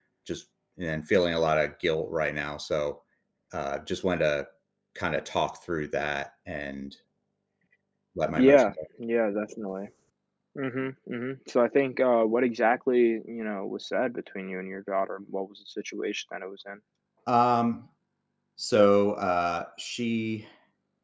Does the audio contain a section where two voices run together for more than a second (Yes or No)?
No